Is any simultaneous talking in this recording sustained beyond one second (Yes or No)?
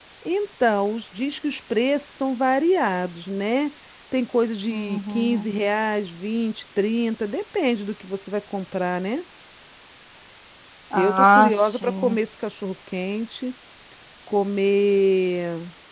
Yes